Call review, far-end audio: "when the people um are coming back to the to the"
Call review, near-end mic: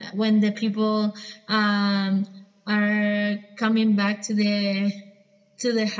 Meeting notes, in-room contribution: none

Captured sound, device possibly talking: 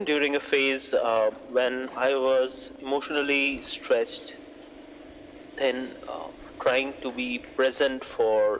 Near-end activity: none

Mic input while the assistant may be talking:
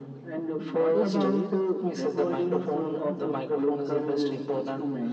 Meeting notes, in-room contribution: present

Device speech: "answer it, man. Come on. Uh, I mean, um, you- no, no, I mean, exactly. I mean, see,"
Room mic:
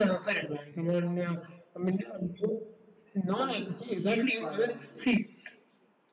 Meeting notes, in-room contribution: present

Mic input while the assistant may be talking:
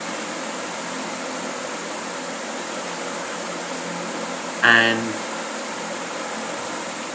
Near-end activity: present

